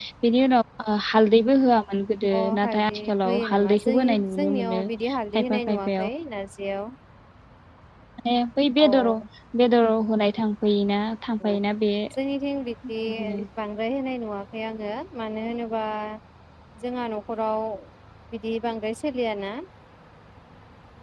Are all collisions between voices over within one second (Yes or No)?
No